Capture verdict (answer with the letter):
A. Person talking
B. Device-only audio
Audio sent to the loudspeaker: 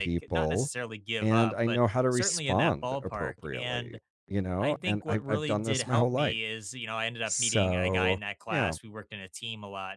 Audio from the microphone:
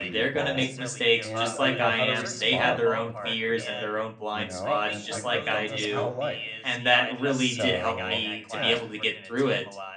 A